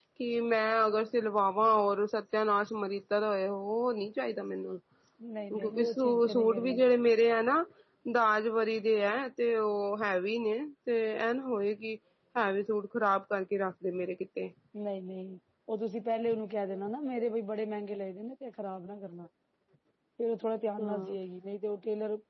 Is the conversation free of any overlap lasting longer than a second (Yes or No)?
No